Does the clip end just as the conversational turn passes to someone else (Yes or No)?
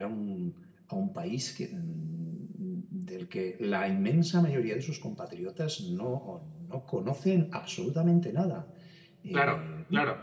Yes